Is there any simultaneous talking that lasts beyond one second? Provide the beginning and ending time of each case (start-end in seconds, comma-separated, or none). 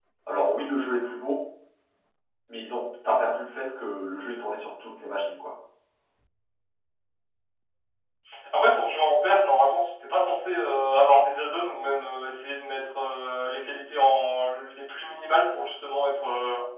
none